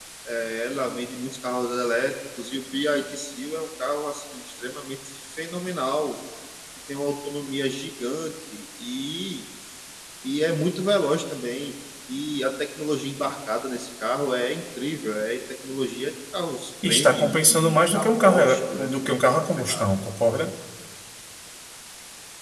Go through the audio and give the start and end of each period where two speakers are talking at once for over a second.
16.9-19.9

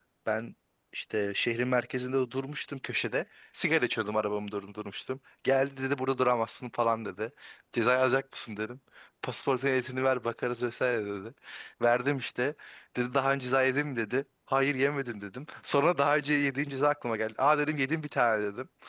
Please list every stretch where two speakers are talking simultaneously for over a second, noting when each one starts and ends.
none

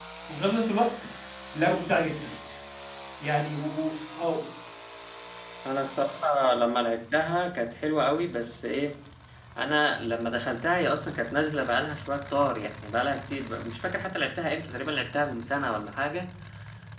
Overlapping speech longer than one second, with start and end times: none

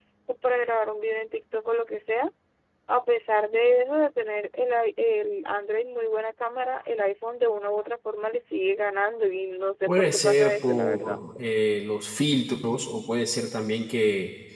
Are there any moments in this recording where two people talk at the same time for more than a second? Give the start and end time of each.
9.9-11.2

